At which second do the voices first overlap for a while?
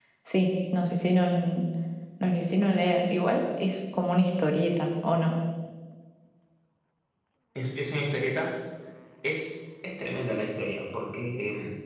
none

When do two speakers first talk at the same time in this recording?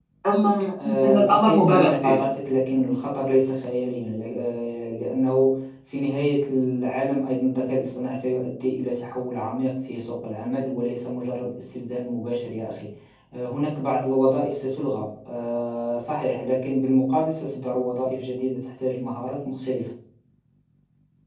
1 s

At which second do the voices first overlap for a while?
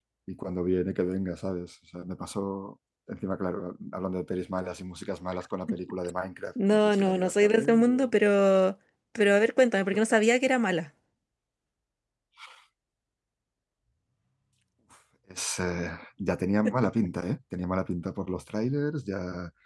7 s

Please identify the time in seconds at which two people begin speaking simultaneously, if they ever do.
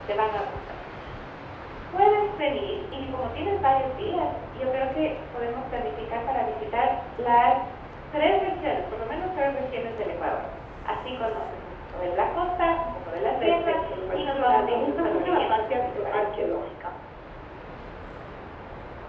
13 s

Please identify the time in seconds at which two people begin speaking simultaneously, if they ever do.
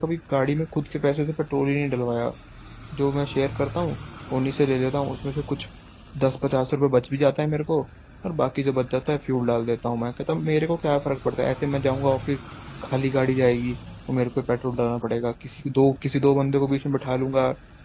none

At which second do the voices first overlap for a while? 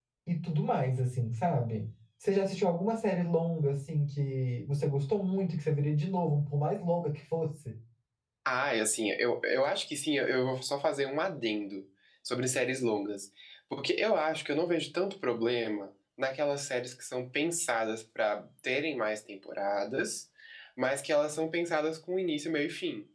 none

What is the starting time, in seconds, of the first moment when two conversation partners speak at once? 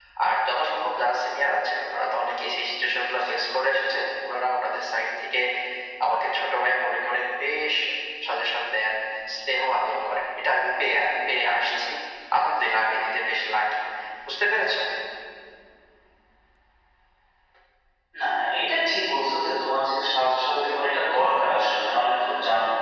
none

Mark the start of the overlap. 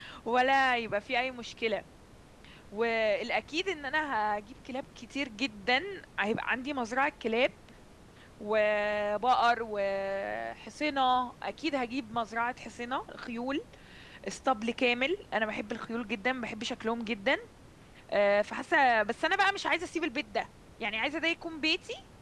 none

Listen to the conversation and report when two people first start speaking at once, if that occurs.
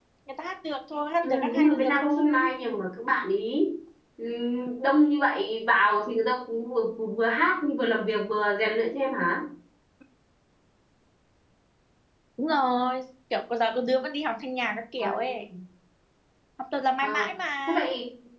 1 s

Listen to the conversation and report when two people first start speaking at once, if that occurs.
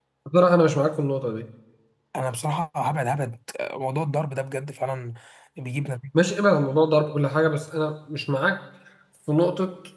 none

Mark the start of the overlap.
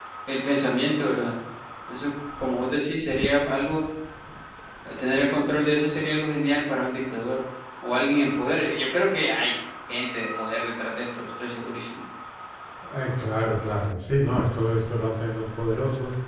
none

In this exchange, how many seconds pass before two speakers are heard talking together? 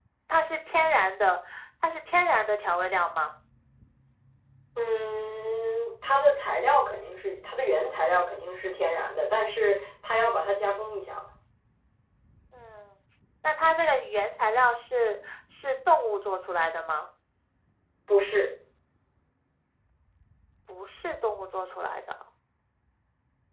none

